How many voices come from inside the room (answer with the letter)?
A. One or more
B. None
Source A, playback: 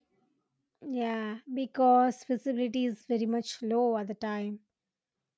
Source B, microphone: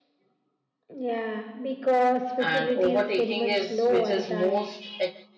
A